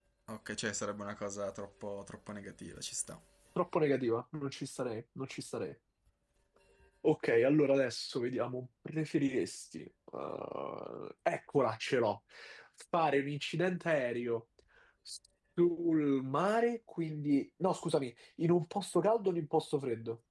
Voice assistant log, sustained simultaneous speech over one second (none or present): none